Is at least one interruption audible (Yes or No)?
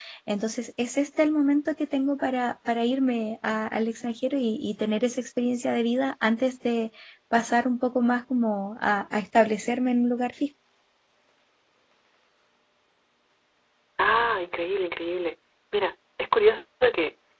No